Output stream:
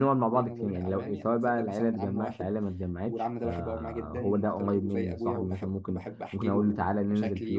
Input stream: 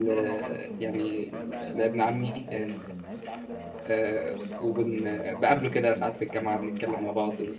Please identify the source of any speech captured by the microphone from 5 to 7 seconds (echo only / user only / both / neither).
both